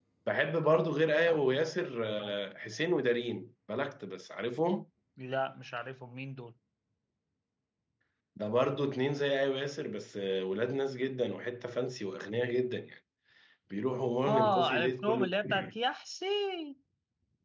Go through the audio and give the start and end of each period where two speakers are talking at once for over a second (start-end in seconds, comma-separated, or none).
14.3-15.8